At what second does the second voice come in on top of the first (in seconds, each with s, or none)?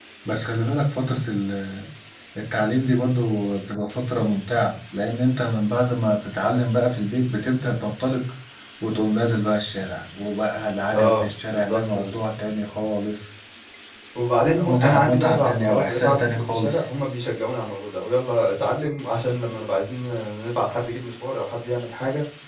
10.9 s